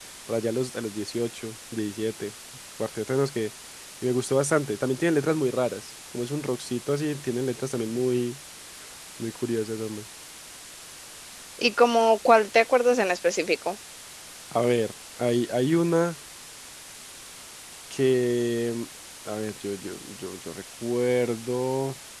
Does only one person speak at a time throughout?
Yes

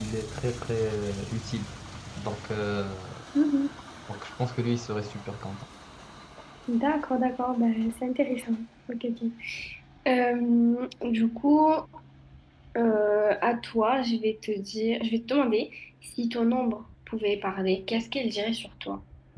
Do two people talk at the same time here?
No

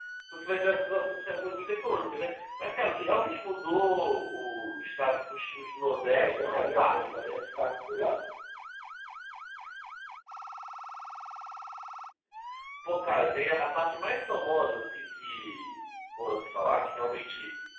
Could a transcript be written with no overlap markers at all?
No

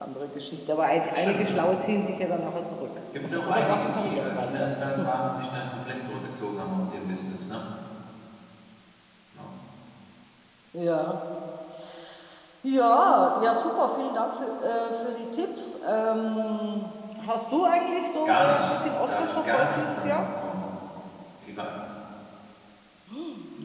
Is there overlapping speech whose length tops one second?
Yes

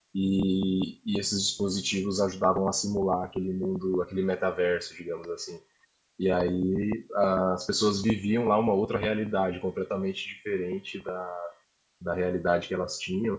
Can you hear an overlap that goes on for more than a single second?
No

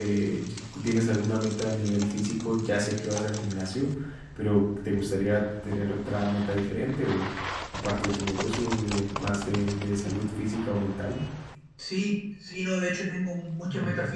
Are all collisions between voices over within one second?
Yes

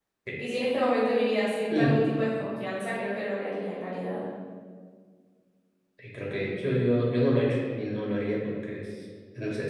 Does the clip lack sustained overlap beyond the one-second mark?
Yes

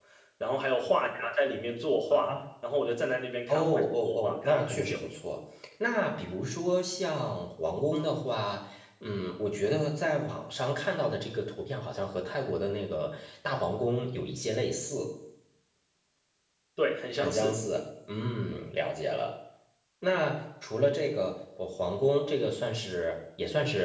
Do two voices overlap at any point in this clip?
Yes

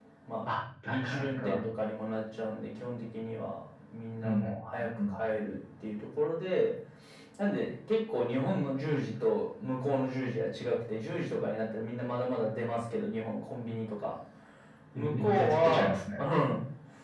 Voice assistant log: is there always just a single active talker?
No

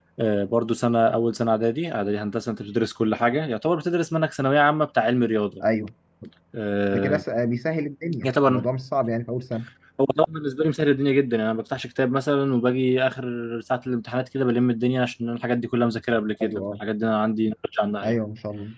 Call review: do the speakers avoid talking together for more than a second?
Yes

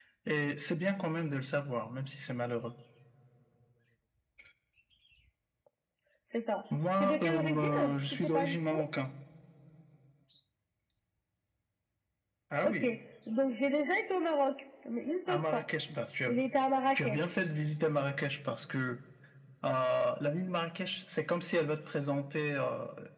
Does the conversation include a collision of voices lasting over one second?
Yes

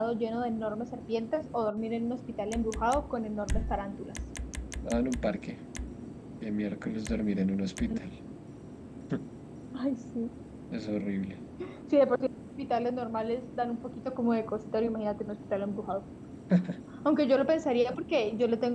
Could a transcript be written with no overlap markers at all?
Yes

